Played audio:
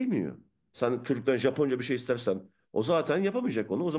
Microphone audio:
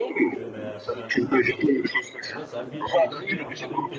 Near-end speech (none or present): present